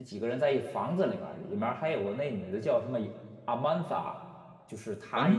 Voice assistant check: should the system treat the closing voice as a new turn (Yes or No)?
No